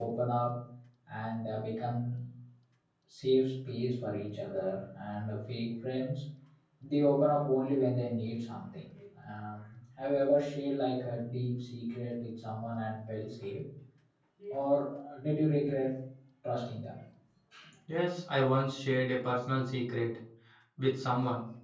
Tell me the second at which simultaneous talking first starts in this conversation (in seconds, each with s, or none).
none